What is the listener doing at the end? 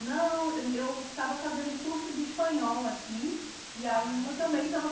listening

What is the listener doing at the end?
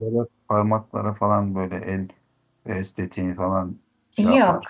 taking over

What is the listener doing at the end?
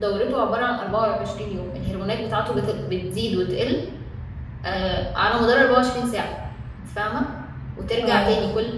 listening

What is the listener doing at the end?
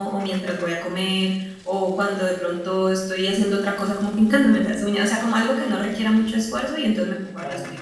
listening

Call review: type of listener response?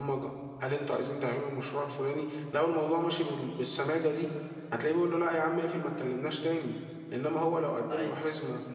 listening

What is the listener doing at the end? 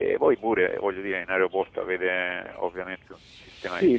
taking over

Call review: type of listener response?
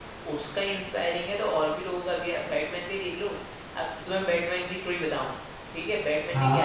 listening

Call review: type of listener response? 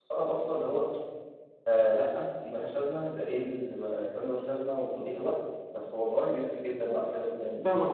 taking over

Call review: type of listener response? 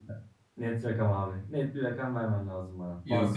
taking over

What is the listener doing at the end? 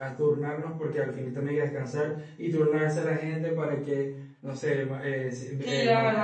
taking over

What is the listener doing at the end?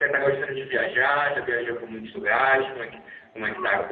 taking over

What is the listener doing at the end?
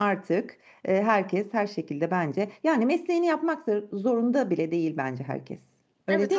taking over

